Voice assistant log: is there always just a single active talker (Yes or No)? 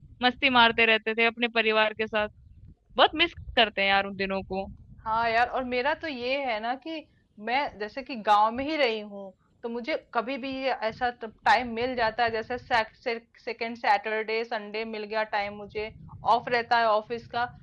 Yes